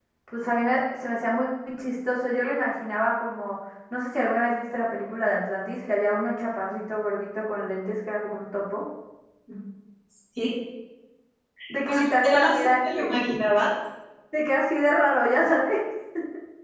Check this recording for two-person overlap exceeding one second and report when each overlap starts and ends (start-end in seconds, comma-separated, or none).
11.8-13.2